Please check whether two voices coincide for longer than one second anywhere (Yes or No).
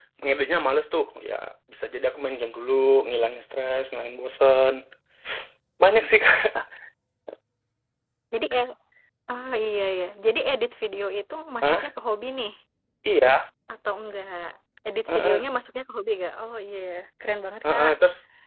No